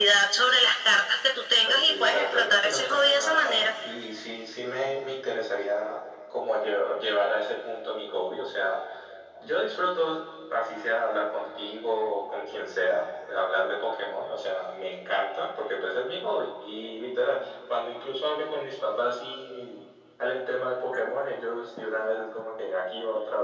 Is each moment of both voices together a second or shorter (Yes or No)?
No